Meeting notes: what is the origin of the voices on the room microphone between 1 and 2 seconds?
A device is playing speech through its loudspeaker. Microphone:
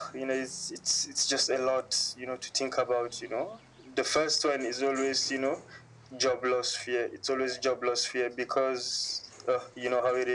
echo only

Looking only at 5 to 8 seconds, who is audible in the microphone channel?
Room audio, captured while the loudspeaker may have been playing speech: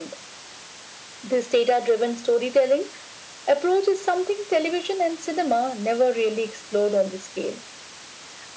echo only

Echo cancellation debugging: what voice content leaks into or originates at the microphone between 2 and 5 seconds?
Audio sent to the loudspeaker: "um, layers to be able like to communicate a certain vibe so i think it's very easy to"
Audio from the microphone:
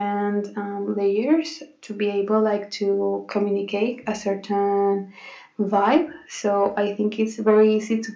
echo only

